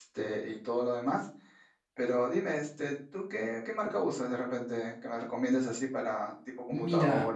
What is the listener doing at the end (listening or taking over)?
taking over